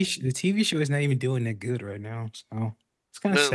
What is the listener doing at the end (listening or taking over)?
taking over